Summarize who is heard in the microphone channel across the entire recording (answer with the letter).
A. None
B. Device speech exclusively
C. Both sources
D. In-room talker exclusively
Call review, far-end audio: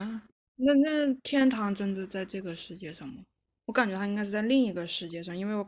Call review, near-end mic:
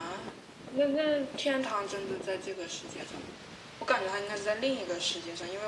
B